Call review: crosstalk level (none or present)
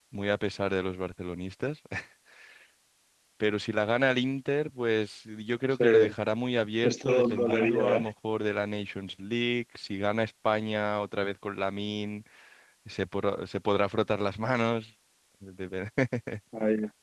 present